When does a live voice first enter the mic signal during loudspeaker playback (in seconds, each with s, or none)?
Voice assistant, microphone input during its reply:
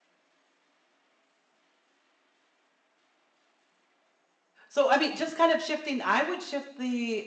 4.7 s